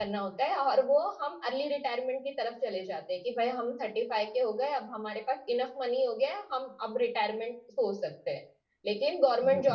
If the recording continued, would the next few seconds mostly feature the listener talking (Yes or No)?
No